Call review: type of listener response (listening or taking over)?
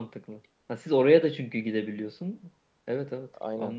taking over